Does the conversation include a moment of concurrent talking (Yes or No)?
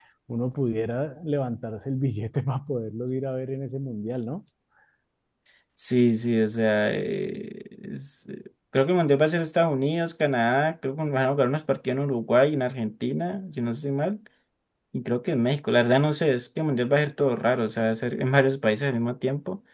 No